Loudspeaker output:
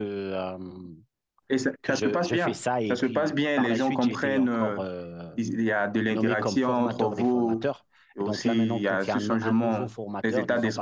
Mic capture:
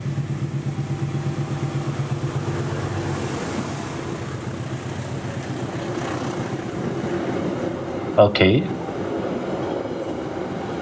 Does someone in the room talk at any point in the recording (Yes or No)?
Yes